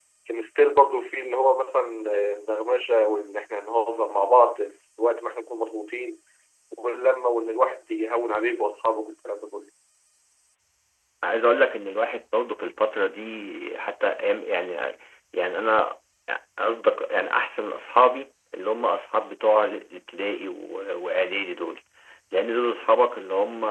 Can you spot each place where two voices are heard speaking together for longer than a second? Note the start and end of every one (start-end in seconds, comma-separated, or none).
none